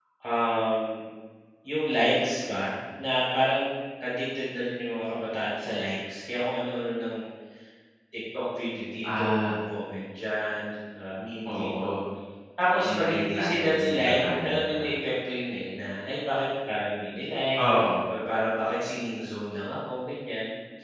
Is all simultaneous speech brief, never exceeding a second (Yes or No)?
No